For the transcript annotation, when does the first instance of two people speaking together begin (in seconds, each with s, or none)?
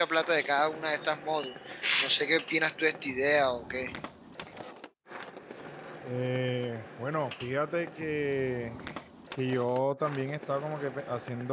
none